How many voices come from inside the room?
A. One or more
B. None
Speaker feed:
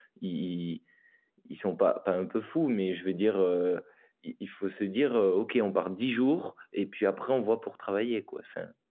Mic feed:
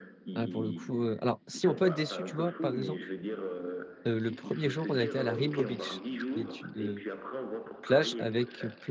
A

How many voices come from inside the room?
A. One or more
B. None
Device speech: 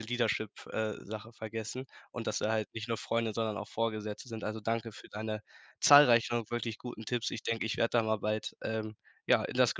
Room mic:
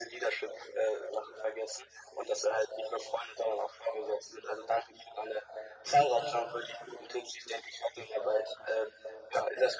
B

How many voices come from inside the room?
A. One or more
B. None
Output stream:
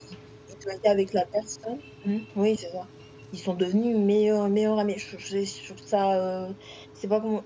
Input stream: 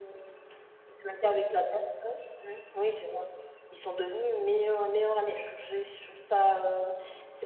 B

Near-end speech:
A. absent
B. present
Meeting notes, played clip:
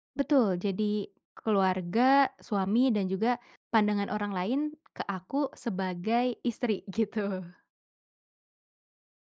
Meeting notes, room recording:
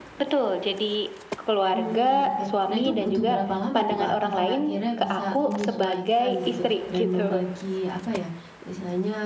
B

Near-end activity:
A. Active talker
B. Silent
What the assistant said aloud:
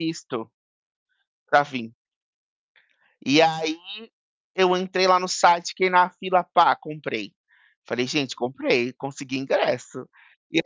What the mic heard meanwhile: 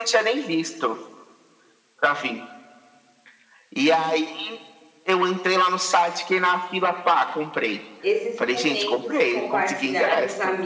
A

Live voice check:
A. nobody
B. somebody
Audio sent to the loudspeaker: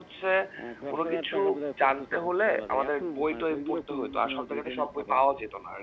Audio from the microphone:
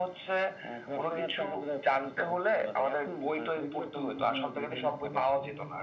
B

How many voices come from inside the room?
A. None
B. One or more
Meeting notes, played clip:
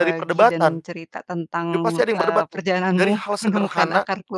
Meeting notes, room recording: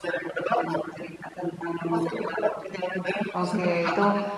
B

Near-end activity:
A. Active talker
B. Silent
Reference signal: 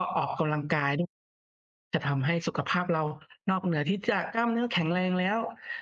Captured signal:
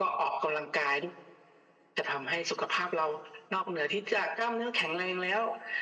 B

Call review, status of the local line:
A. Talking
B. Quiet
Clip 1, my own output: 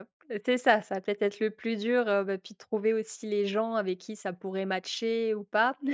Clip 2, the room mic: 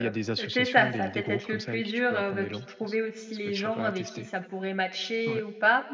A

